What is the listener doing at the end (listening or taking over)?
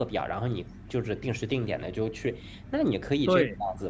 listening